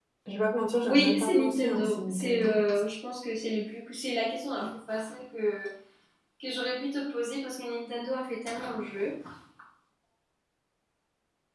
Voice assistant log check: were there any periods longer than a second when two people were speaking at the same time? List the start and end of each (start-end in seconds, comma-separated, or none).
0.8-2.6